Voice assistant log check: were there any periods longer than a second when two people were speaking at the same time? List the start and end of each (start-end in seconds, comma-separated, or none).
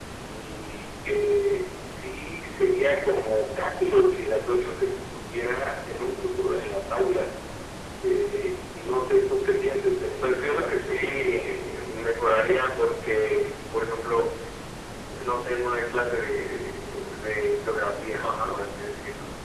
10.2-11.6